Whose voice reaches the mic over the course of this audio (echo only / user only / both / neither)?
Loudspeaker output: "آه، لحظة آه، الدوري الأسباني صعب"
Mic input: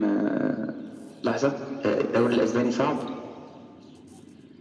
echo only